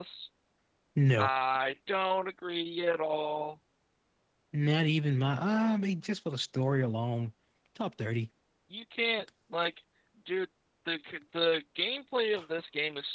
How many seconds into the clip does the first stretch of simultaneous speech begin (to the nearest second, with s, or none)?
none